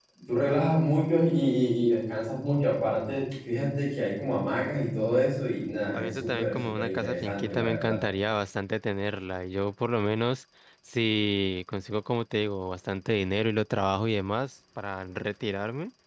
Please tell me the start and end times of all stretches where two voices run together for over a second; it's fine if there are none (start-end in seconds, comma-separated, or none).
5.9-8.0